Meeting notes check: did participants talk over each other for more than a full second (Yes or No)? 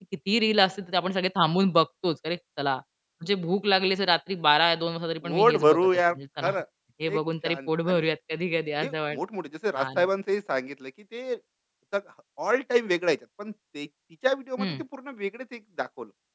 Yes